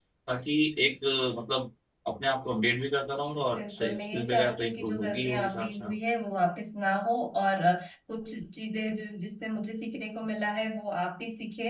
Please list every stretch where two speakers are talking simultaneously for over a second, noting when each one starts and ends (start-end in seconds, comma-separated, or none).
3.6-5.9